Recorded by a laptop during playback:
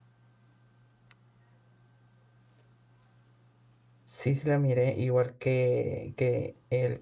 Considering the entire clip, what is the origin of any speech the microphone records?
user only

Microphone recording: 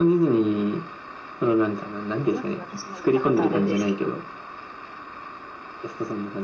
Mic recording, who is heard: both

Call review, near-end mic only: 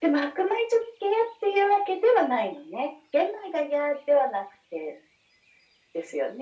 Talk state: echo only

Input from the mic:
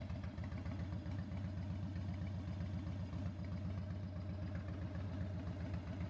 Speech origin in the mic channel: neither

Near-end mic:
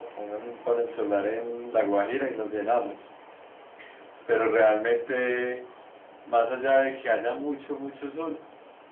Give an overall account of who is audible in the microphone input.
echo only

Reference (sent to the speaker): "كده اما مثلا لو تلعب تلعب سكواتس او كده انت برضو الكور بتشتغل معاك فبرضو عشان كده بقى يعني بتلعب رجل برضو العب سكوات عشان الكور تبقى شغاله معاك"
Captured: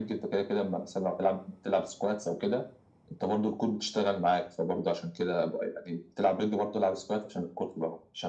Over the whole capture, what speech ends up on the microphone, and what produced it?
echo only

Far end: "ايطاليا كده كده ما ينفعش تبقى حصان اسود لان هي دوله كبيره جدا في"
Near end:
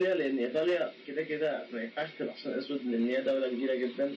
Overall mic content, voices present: echo only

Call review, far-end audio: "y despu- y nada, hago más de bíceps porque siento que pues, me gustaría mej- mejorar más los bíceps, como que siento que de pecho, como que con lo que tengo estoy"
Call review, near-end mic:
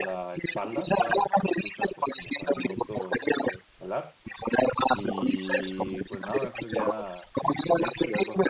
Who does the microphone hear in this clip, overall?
both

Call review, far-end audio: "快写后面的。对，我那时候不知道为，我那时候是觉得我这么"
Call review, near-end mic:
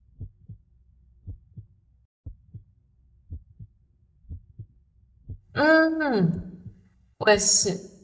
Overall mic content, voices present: user only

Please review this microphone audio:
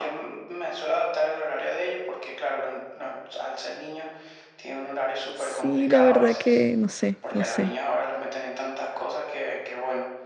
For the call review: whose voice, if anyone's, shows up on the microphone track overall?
both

